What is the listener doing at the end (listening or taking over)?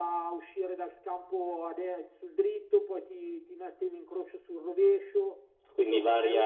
taking over